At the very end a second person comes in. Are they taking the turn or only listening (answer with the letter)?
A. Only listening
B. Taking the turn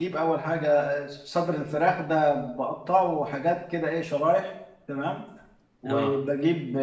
A